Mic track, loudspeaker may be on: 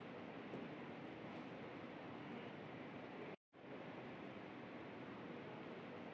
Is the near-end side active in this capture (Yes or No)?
No